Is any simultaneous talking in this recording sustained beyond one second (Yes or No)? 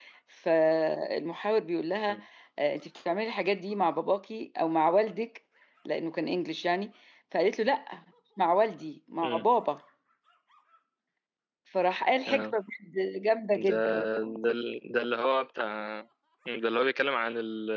No